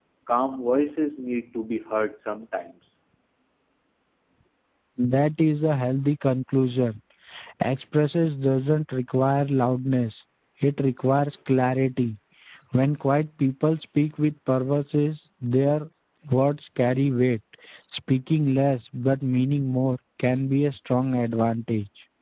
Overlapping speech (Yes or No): No